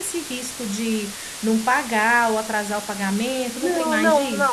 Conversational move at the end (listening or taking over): taking over